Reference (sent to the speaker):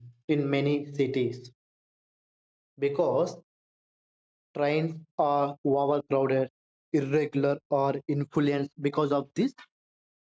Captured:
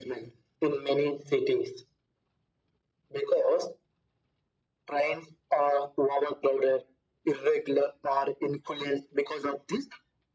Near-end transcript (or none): none